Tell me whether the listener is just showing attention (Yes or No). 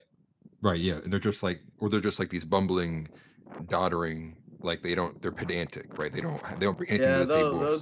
No